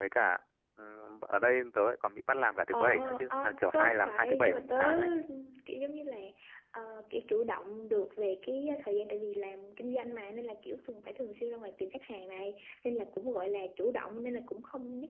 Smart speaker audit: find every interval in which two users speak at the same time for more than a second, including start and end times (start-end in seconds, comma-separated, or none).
2.7-5.0